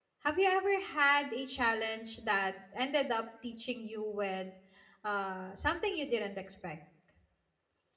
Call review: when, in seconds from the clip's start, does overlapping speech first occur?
none

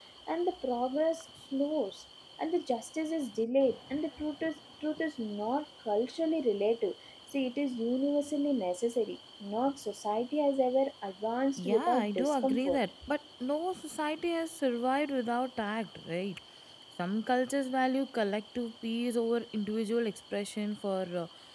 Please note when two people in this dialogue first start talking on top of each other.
12 s

